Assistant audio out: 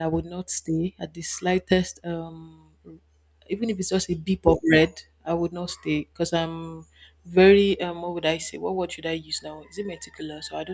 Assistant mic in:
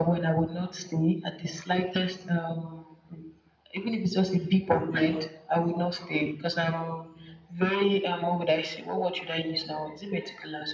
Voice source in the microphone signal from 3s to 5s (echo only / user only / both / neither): echo only